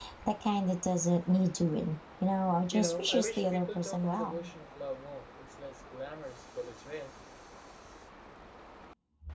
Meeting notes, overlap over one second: present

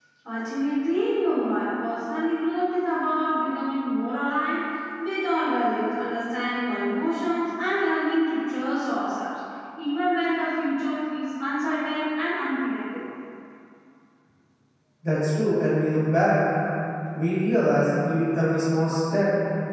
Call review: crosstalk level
none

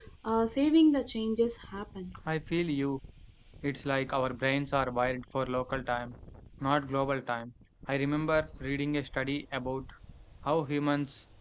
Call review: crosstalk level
none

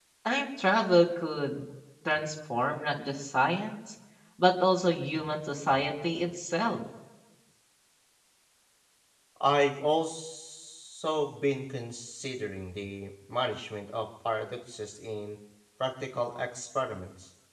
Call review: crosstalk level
none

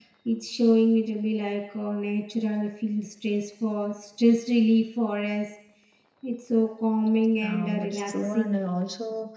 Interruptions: present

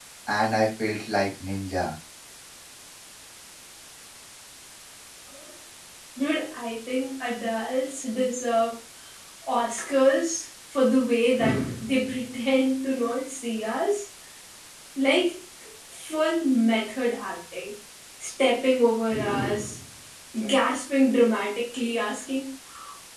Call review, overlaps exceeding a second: none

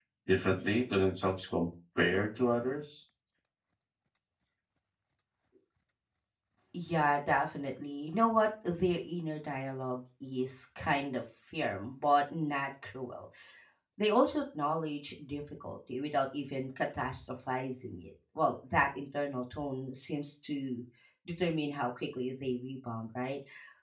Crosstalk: none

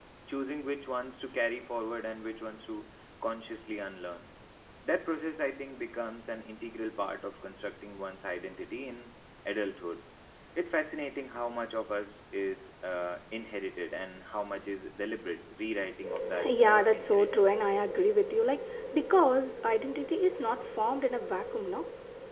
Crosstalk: present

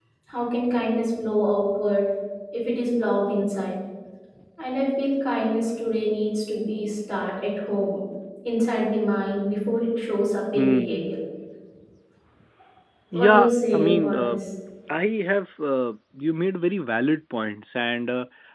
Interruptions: present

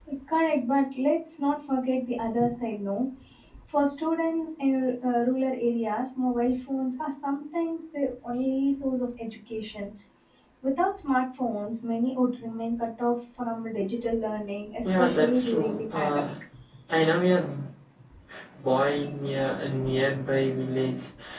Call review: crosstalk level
present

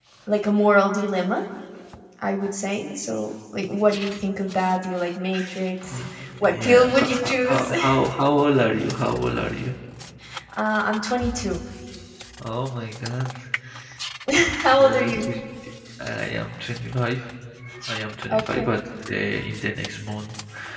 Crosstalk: present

